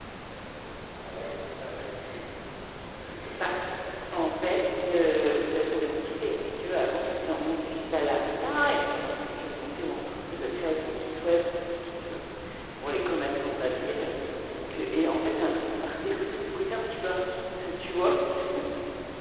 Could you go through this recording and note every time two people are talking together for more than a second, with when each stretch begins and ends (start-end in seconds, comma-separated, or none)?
none